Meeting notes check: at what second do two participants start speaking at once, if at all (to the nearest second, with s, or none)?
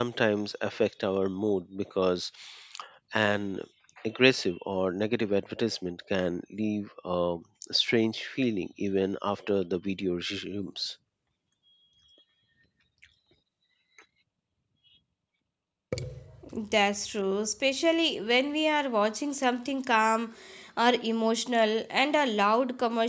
none